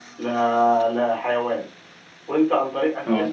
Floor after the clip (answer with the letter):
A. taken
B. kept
B